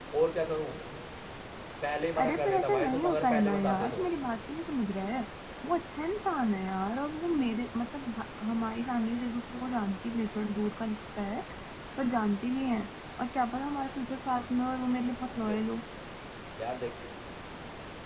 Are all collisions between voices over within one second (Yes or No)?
No